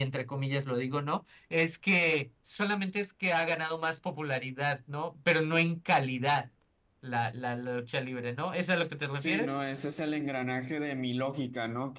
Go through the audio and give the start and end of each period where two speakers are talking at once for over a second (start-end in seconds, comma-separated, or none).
none